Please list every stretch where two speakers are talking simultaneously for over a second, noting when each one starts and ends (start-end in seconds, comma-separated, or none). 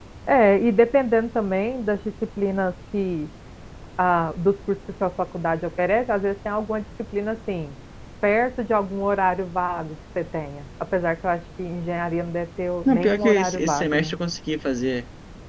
12.8-14.1